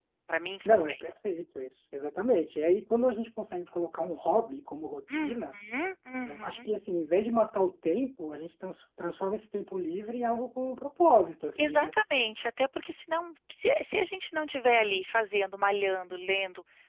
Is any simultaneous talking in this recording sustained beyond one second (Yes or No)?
No